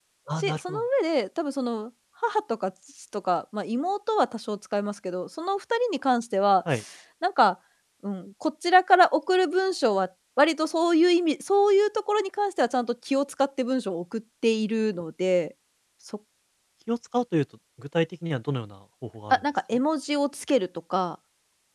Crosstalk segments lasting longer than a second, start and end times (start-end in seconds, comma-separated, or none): none